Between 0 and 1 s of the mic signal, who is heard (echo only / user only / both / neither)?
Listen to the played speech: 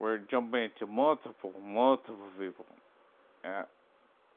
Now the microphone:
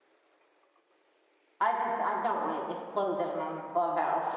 neither